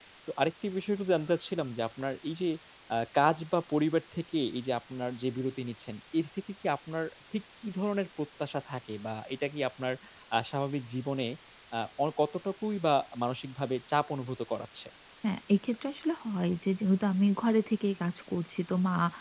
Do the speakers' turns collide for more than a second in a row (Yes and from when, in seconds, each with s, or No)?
No